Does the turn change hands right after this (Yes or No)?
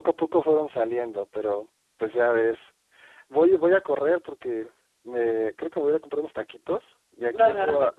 No